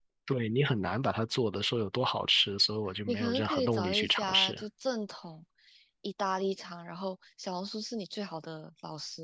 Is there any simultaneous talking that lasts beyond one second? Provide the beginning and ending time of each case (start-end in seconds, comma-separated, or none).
3.1-4.6